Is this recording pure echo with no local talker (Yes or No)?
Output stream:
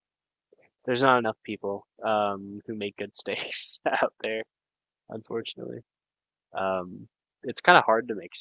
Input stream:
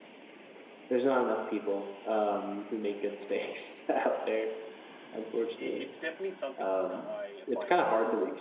No